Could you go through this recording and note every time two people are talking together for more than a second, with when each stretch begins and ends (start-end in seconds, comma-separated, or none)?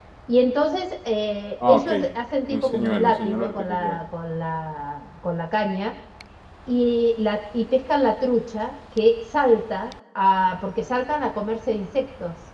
2.5-4.0